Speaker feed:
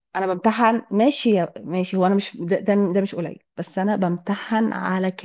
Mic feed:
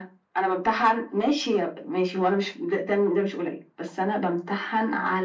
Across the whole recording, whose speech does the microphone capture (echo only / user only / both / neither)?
echo only